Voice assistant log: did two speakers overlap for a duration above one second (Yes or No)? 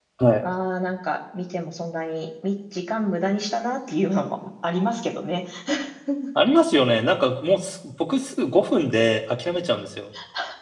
No